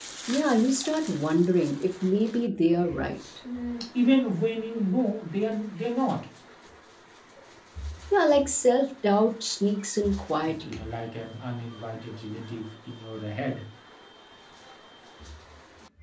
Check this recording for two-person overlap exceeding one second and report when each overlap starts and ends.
none

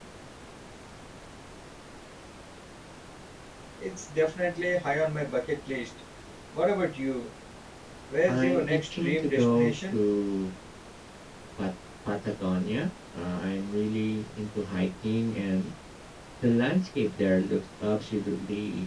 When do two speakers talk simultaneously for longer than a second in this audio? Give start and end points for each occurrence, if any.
8.3-10.0

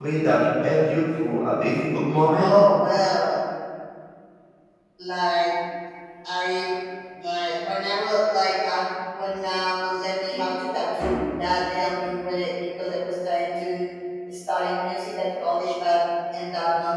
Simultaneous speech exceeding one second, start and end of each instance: none

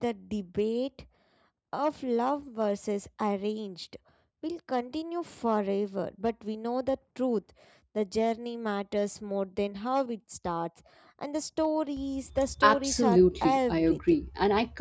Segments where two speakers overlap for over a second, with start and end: 12.6-14.2

